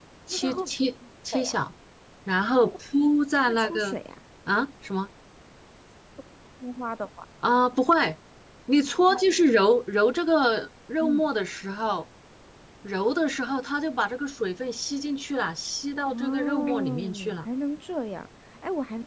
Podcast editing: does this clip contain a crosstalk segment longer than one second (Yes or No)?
Yes